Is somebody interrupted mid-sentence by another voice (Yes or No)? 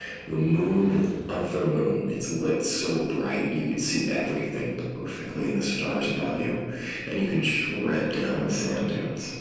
No